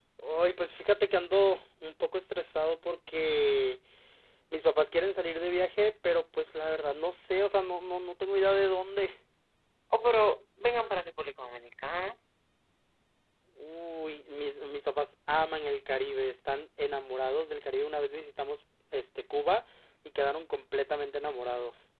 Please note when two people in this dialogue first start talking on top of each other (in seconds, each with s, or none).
none